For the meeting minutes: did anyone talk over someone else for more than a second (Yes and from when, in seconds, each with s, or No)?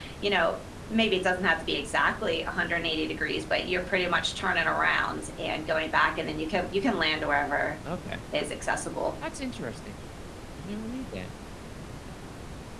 No